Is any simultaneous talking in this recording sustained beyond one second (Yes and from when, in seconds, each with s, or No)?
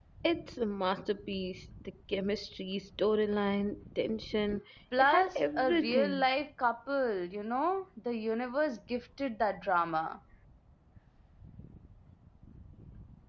Yes, from 4.9 s